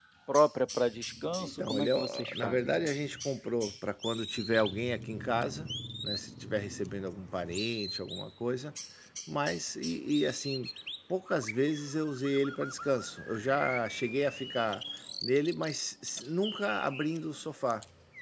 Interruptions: present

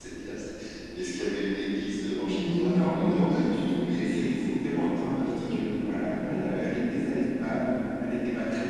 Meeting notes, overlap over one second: present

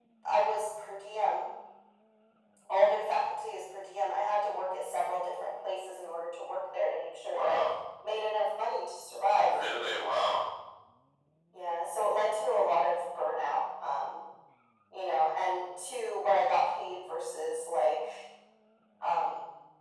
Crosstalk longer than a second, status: none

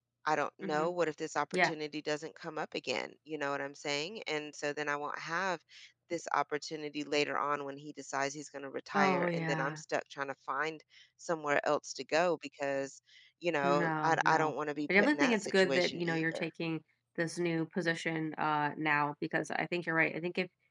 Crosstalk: present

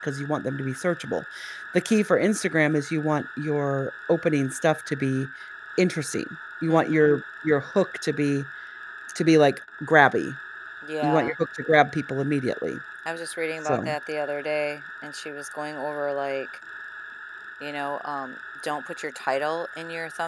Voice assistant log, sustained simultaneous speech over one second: none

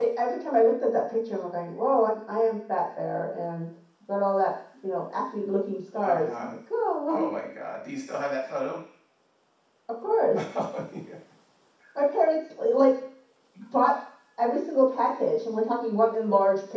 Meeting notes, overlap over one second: none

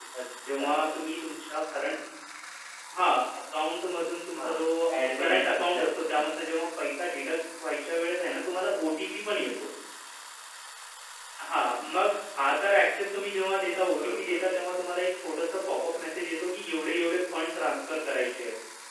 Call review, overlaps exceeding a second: present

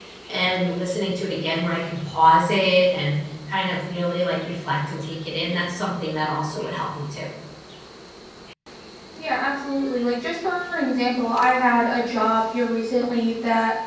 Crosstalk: none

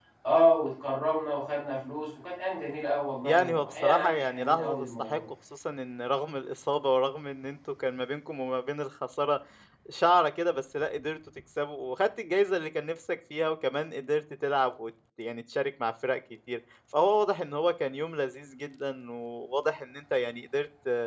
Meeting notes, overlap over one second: present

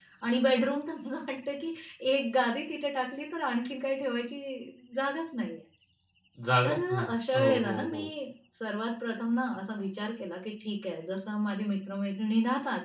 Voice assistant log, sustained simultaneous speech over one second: present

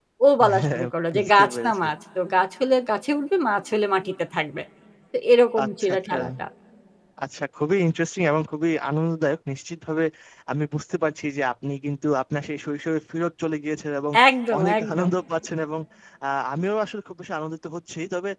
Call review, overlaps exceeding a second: present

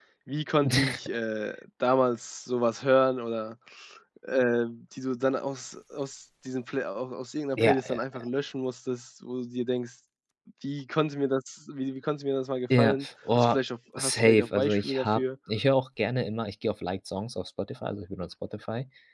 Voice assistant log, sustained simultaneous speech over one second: present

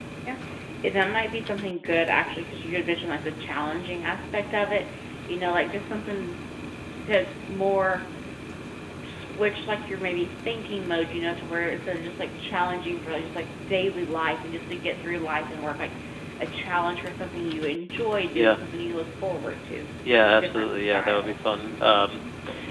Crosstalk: present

